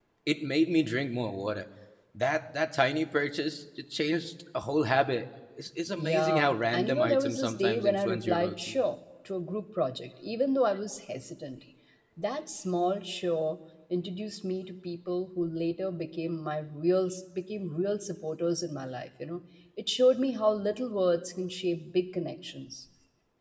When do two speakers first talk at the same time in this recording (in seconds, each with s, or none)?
6.0 s